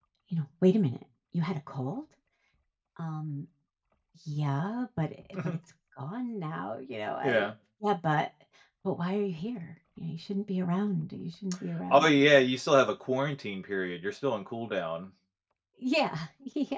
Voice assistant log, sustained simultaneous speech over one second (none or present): none